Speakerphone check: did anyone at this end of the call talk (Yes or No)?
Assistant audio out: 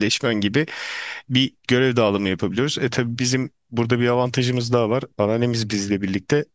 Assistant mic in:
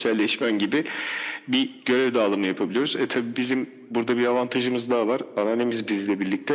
No